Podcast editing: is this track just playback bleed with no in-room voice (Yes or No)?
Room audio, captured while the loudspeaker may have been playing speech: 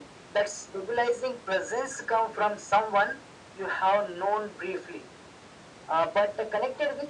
Yes